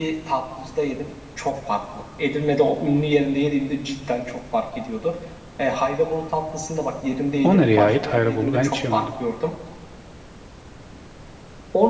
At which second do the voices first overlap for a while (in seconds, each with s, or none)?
7.4 s